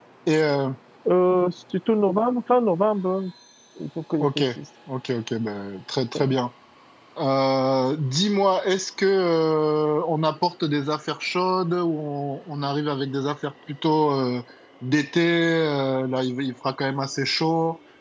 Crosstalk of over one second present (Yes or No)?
No